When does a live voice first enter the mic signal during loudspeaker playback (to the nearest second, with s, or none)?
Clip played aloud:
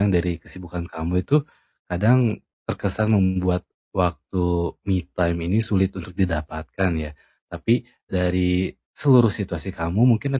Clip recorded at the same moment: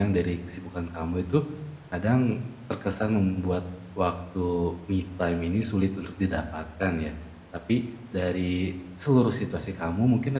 none